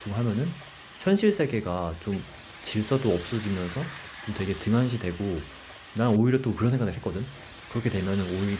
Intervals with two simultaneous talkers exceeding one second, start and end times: none

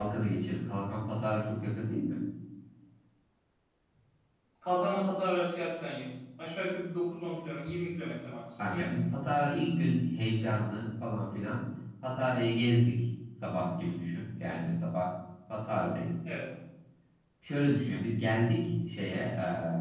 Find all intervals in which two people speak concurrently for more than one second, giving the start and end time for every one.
none

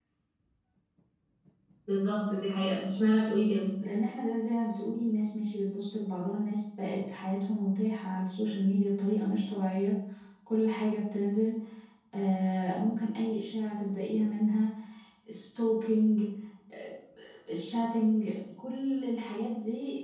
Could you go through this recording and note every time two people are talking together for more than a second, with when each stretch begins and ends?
none

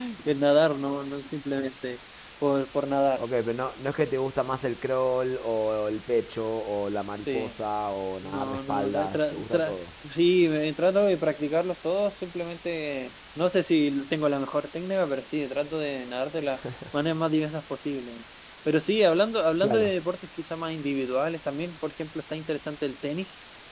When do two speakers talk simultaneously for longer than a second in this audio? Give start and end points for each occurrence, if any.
8.2-9.7

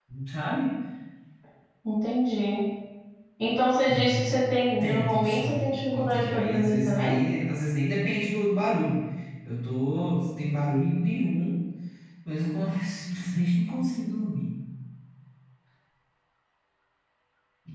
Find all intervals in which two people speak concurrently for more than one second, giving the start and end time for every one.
4.8-7.2

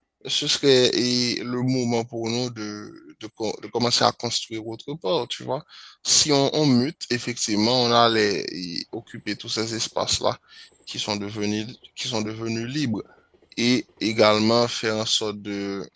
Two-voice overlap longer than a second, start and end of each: none

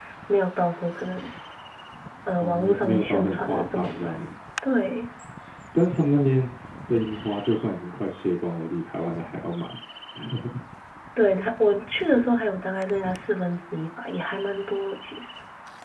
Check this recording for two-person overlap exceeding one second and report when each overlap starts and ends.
2.4-4.1

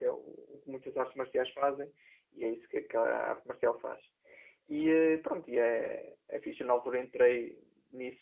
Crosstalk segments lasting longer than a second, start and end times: none

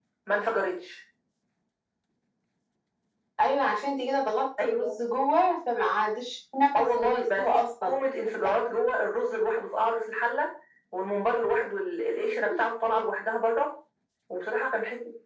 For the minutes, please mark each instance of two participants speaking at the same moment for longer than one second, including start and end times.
6.8-8.0

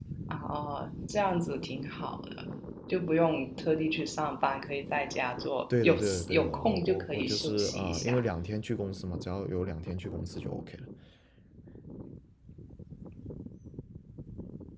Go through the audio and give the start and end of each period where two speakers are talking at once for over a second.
5.8-8.2

